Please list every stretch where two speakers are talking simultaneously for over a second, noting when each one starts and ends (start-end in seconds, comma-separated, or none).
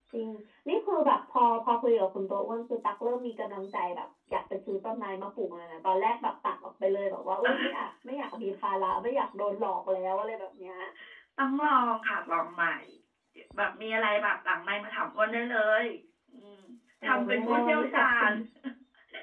17.0-18.3